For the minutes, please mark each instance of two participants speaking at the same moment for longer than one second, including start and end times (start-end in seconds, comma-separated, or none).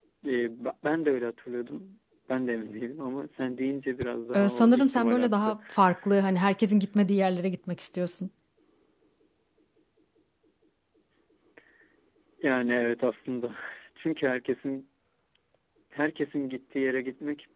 4.3-5.5